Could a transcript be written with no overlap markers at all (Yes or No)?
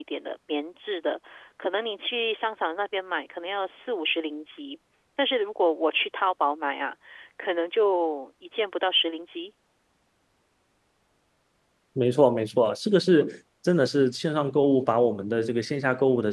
Yes